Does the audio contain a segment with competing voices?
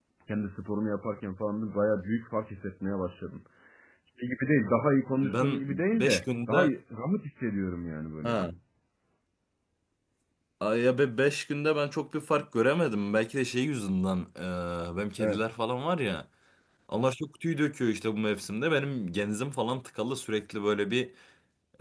Yes, from 5.2 s

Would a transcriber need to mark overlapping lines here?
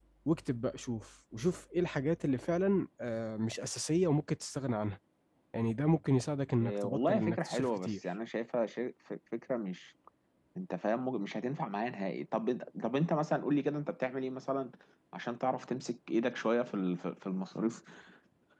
Yes, from 6.6 s

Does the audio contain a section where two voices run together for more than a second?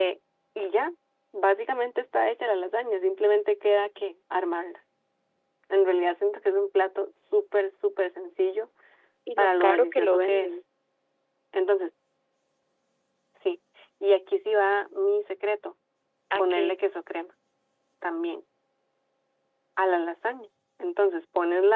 Yes, from 9.4 s

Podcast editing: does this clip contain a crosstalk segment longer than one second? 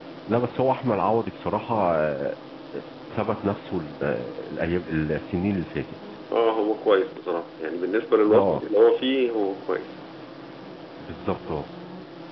No

